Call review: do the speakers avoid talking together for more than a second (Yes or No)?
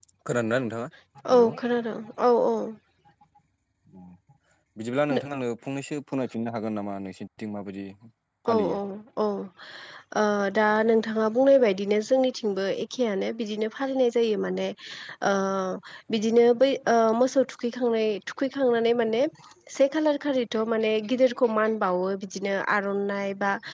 Yes